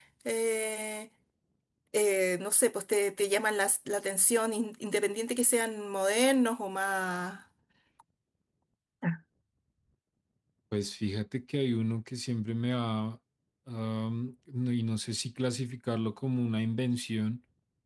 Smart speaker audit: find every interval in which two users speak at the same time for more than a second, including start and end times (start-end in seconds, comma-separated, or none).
none